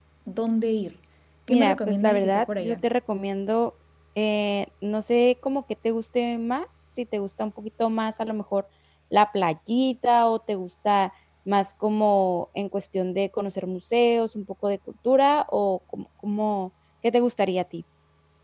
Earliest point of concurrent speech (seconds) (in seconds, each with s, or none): 1.5 s